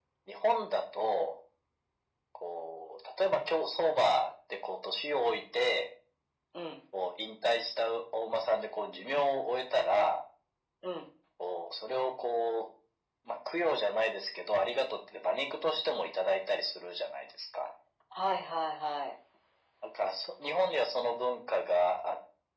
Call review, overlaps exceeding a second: none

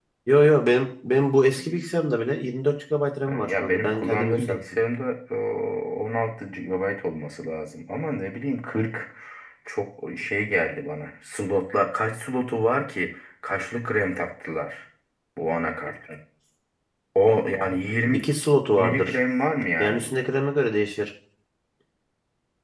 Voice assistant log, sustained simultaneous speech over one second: present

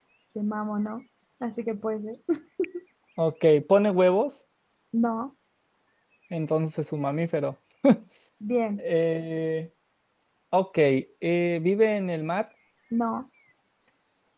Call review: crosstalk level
none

